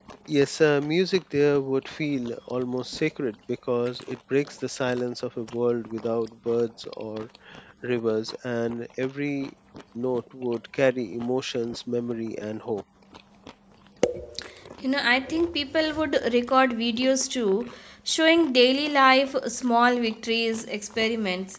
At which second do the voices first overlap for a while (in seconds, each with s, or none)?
none